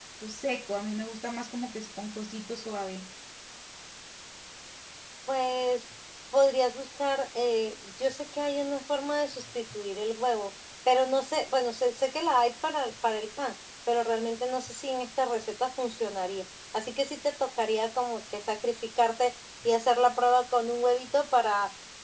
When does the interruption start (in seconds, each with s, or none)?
none